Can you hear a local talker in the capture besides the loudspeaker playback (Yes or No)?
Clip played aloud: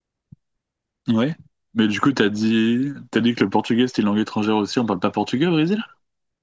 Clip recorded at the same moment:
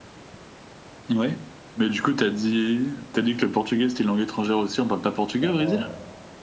Yes